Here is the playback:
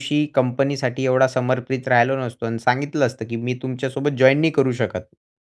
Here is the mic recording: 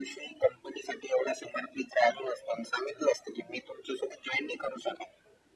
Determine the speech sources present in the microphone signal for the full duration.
echo only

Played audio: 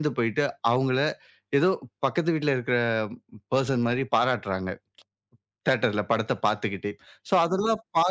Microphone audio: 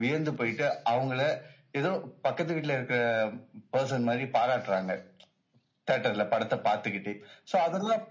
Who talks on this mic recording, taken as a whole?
echo only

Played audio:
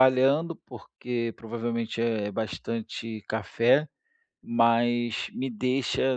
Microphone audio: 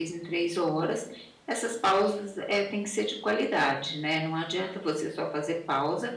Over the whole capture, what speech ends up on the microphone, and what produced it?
user only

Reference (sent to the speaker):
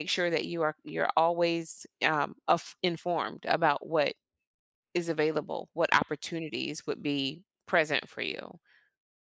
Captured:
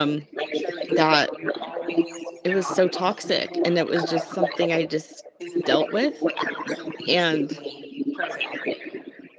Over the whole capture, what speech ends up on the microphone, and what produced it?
both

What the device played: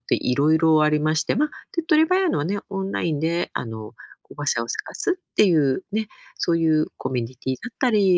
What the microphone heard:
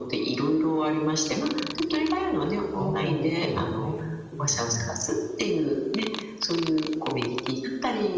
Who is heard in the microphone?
both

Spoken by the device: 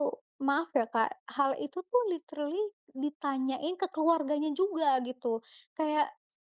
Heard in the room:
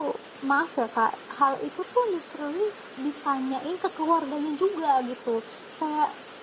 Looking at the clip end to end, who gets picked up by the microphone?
echo only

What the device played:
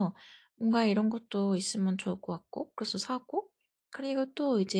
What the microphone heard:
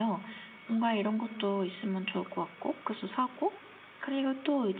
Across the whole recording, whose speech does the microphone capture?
echo only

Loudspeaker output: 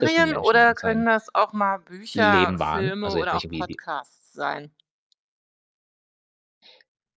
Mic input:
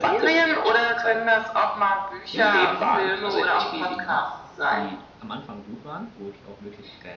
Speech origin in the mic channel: both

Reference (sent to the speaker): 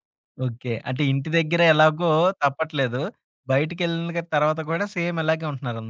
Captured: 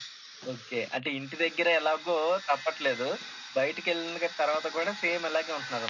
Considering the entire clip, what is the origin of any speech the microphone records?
echo only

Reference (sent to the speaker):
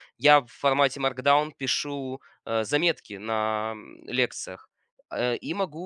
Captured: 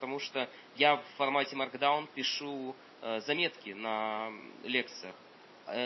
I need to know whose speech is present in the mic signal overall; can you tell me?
echo only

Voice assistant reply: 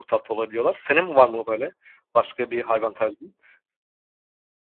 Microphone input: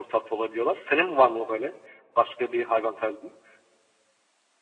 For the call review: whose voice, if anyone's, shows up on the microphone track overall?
echo only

